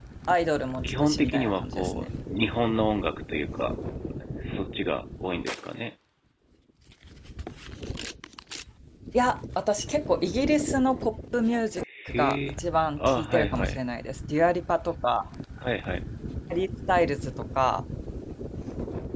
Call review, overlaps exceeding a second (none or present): present